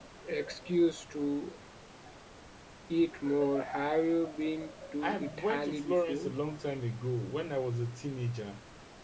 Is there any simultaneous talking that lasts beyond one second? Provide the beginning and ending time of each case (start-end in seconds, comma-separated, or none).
5.0-6.3